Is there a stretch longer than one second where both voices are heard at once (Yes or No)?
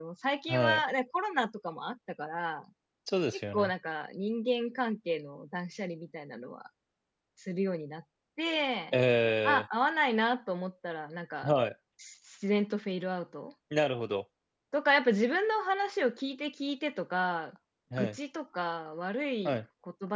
No